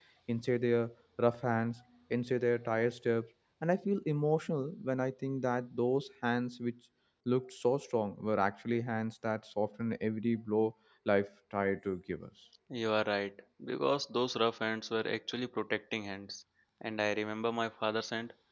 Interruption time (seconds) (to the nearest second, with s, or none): none